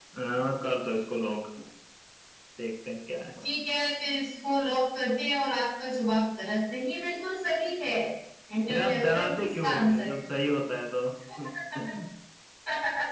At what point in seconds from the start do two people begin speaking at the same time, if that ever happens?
8.7 s

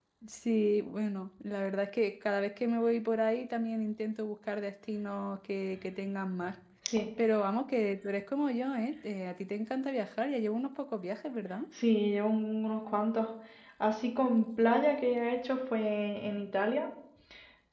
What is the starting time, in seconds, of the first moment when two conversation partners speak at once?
none

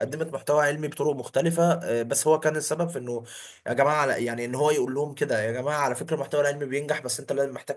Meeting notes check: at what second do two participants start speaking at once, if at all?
none

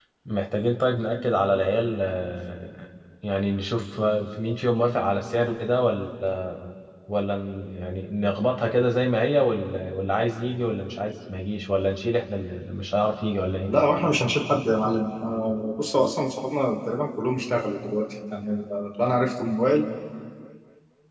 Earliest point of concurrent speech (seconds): none

